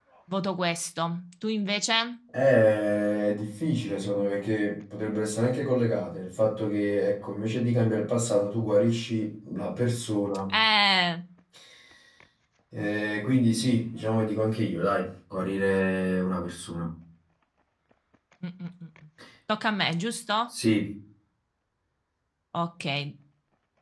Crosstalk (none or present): none